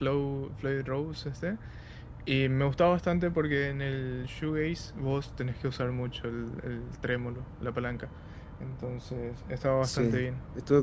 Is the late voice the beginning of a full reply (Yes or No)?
Yes